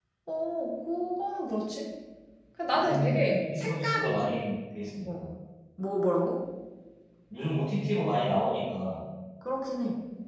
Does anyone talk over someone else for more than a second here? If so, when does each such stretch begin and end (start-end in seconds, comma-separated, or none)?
2.7-4.3